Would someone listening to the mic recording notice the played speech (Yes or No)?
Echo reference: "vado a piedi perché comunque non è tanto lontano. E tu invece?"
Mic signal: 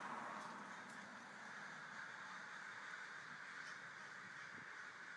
No